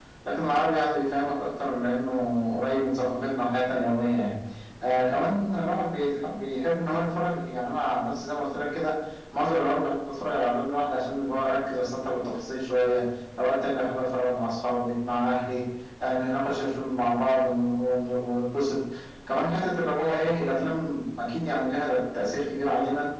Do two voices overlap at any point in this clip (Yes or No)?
No